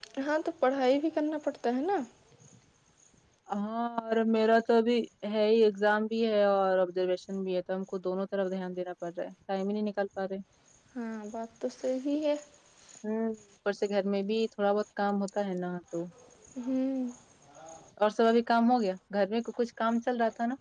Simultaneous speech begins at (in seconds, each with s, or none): none